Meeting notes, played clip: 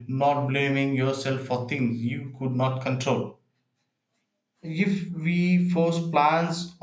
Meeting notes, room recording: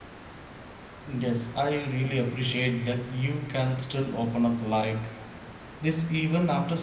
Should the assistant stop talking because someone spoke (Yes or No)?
Yes